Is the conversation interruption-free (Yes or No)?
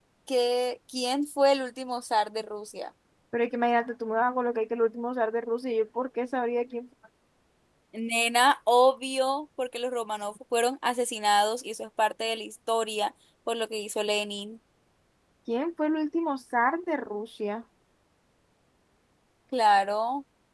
Yes